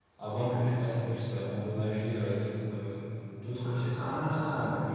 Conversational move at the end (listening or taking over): taking over